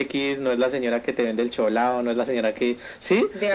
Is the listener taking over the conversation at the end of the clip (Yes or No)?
No